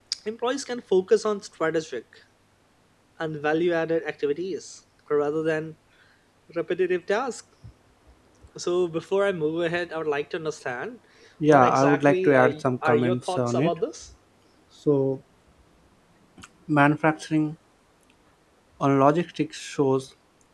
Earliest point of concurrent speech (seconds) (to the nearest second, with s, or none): 11 s